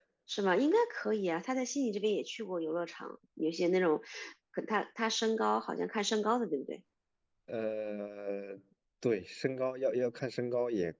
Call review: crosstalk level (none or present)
none